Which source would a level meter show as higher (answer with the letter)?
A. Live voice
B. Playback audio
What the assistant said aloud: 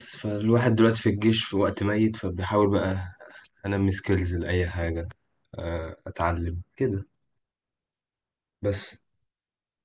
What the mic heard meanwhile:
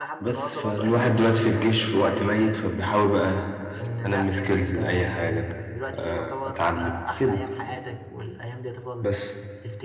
B